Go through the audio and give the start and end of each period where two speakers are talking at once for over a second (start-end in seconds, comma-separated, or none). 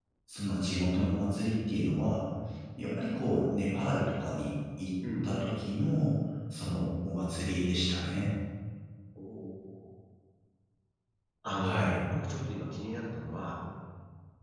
none